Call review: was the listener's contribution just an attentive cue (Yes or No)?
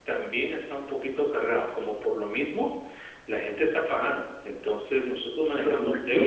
No